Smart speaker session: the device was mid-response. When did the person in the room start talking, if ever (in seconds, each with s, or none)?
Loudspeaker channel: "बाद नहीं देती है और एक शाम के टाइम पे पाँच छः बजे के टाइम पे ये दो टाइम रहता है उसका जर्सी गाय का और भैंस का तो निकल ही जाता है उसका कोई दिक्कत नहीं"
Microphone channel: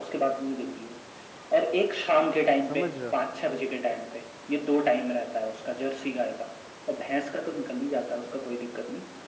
2.7 s